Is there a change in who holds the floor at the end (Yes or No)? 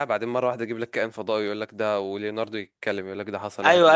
Yes